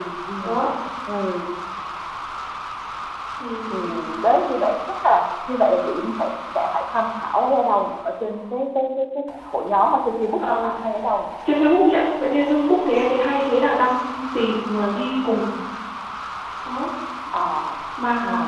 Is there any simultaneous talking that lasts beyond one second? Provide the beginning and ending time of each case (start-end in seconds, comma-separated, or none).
none